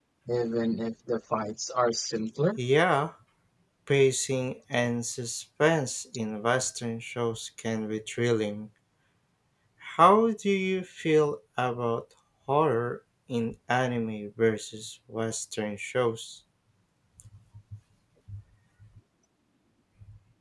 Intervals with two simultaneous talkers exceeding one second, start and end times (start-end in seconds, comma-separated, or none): none